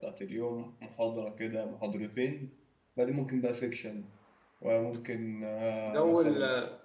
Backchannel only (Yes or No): No